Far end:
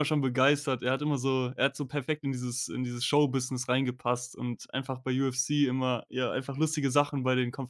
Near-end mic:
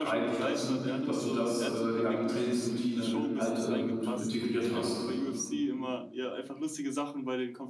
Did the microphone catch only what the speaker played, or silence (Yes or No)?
No